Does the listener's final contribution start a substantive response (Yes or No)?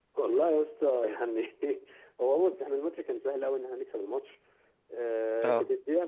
No